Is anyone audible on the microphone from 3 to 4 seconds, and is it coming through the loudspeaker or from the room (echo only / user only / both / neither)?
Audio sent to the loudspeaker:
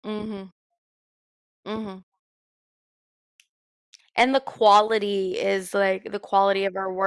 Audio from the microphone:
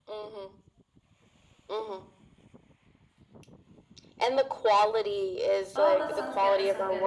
neither